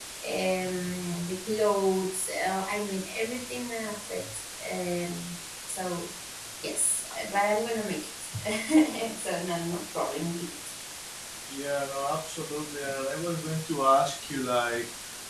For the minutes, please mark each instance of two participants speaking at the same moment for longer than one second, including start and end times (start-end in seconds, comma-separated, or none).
none